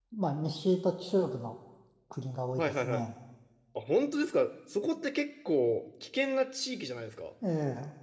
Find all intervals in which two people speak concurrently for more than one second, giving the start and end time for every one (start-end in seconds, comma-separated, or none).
none